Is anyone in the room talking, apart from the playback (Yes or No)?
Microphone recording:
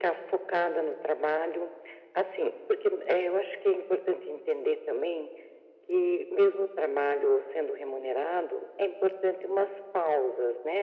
No